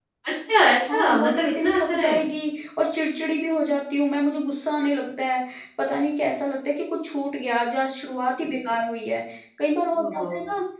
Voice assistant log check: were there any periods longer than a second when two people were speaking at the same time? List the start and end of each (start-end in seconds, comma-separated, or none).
0.9-2.2